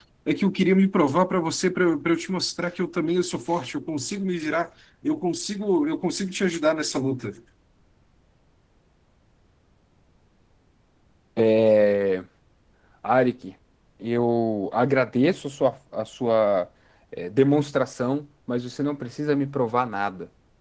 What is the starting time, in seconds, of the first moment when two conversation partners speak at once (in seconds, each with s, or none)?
none